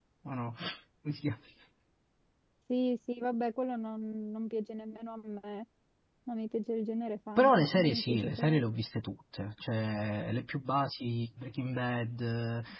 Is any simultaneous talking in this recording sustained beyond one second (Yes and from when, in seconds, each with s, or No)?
Yes, from 7.4 s